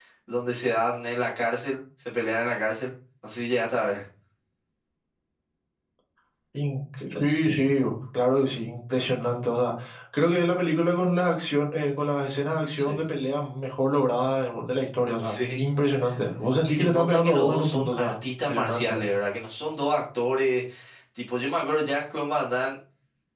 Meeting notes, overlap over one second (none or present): present